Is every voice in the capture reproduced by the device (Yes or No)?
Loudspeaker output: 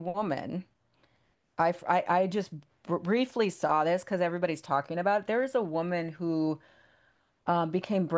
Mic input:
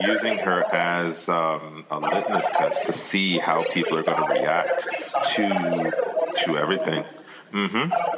No